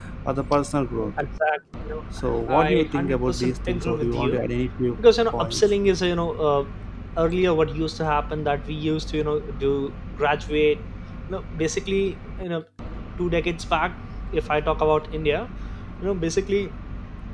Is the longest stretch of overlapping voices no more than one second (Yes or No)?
No